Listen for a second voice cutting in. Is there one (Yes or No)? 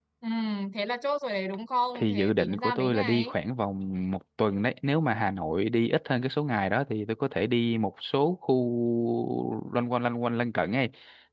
Yes